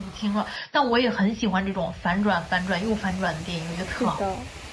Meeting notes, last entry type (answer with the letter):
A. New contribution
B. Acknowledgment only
A